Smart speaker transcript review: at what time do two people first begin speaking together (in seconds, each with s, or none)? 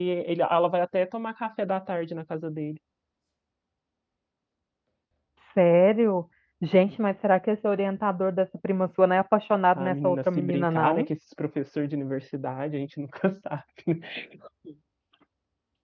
9.8 s